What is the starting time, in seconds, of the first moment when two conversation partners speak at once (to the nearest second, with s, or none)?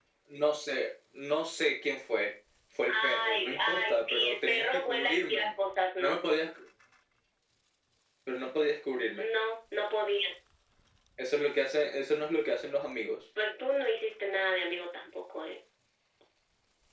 3 s